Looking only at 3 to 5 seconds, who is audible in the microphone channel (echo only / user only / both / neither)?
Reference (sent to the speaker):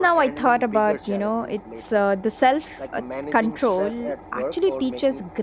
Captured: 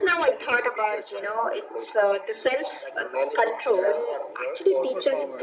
both